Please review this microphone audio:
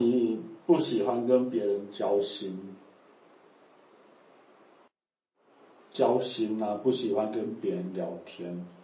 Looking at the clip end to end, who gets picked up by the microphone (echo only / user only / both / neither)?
user only